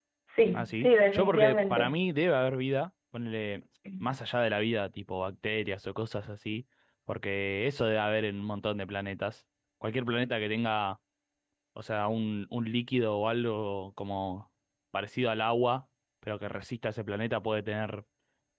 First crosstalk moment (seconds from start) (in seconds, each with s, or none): 0.5 s